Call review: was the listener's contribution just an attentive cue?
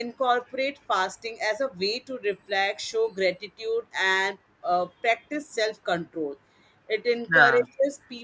Yes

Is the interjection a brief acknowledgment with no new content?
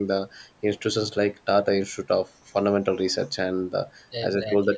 Yes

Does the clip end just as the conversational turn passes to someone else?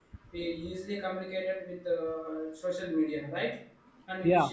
No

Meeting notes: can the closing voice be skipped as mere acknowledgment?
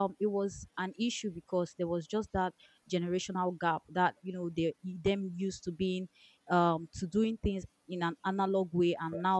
Yes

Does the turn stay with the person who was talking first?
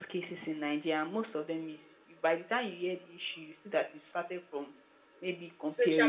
Yes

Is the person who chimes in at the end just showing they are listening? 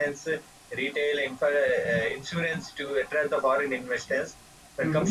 Yes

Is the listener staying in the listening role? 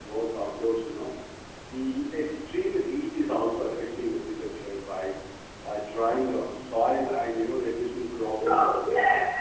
No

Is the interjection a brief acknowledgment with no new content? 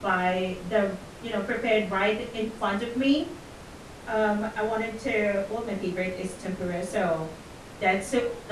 Yes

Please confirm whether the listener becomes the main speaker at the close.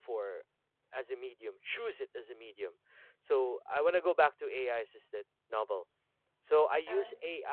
No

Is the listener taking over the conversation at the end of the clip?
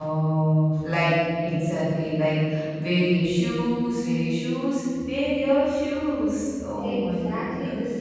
Yes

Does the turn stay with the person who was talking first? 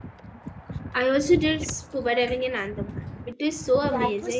No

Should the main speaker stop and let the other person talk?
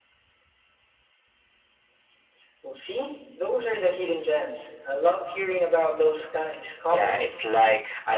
Yes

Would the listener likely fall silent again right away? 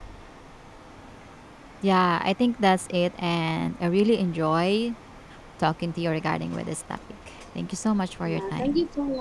No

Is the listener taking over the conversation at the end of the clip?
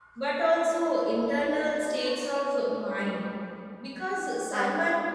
No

